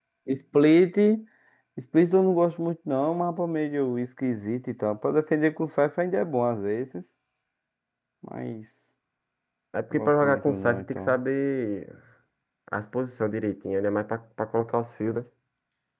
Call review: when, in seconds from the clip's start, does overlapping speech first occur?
9.9 s

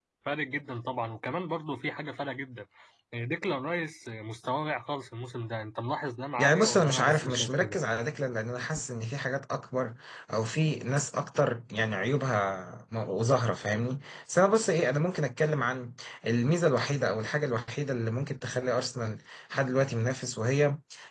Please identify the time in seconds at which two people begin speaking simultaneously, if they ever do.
6.4 s

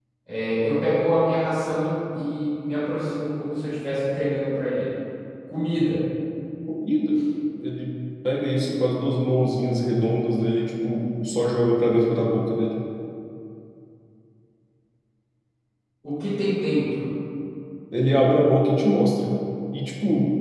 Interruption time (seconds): none

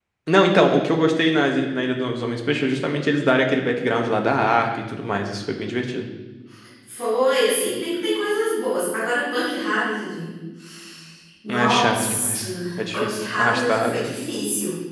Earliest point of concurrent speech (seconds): 11.5 s

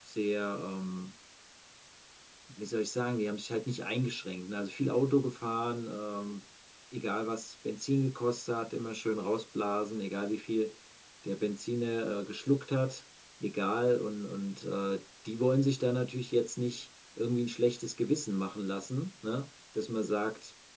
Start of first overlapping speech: none

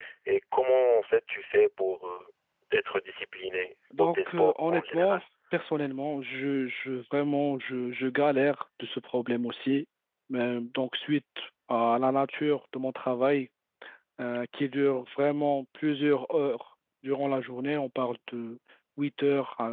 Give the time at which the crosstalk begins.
3.9 s

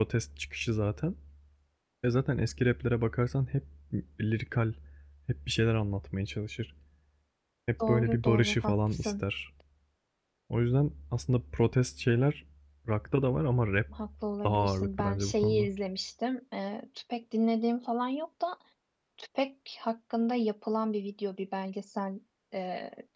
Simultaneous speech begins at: 7.8 s

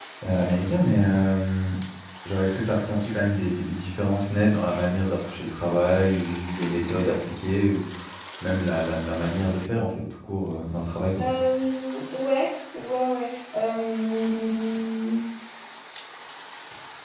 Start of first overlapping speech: none

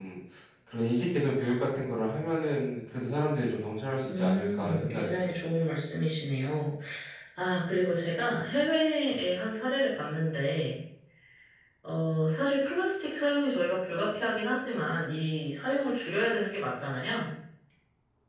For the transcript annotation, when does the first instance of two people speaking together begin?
4.1 s

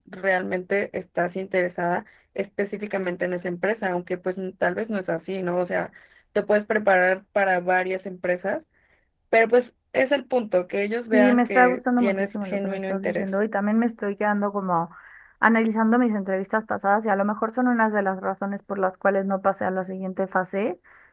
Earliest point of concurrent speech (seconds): 11.1 s

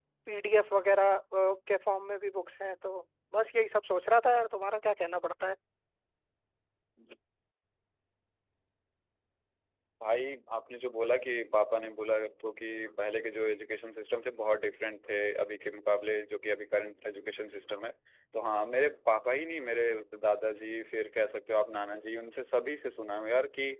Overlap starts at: none

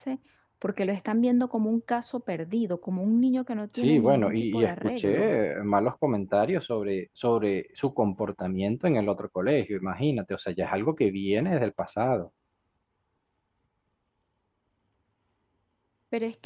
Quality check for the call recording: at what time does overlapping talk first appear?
3.7 s

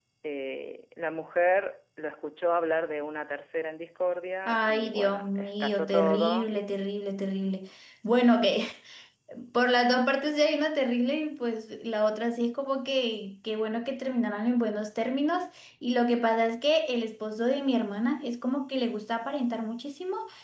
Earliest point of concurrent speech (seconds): 4.5 s

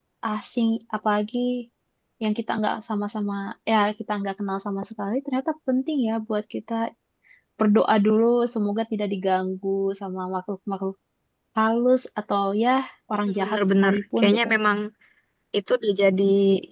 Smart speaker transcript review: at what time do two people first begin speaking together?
13.3 s

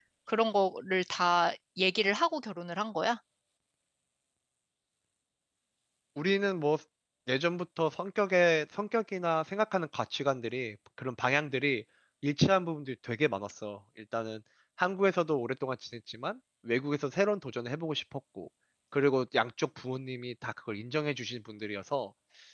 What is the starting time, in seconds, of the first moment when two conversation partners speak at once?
none

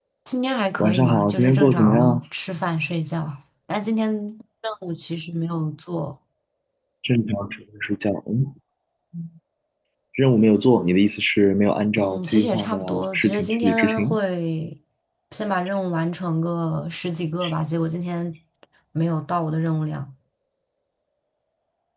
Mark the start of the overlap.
0.8 s

